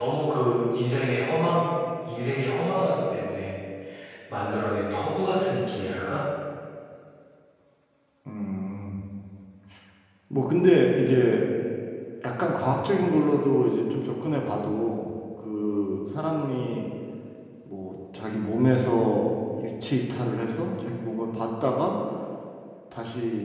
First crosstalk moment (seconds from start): none

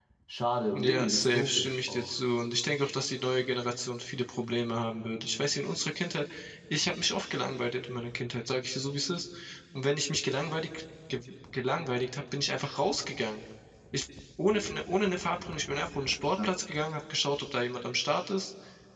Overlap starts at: 0.7 s

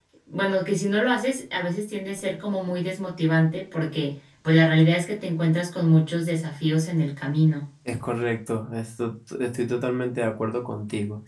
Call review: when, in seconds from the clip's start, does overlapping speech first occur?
none

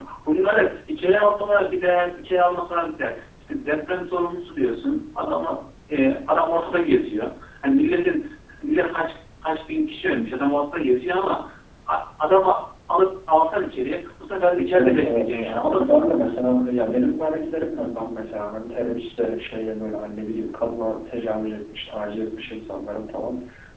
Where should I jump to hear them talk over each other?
14.7 s

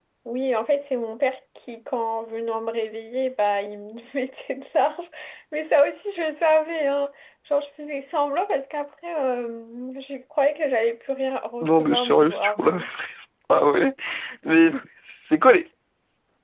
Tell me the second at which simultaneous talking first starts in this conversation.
11.6 s

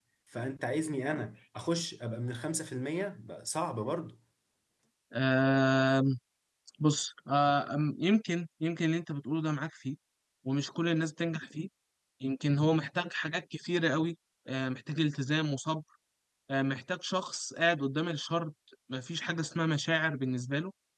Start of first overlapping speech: none

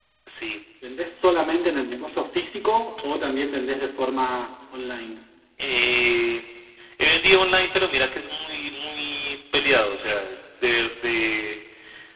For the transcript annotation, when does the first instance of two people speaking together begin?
none

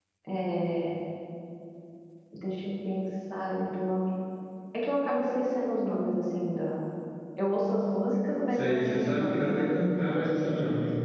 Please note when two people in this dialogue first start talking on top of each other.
8.5 s

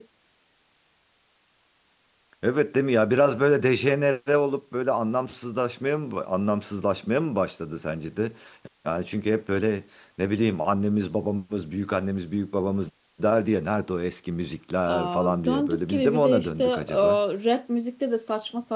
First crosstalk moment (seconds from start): 14.9 s

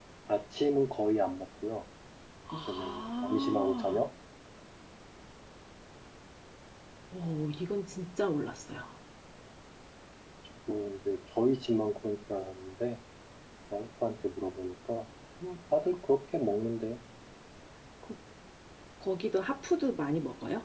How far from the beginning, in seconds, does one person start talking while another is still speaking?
2.7 s

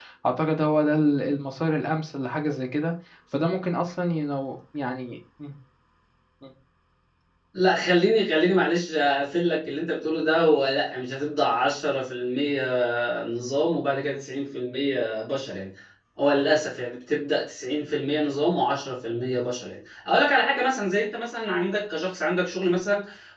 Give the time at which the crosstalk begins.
none

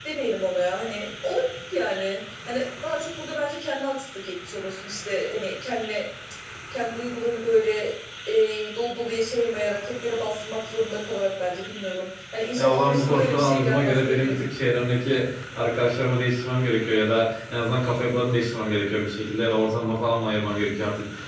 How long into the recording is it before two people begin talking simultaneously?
12.6 s

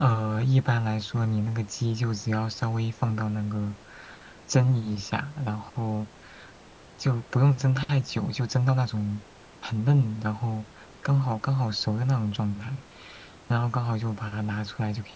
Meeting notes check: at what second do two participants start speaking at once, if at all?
none

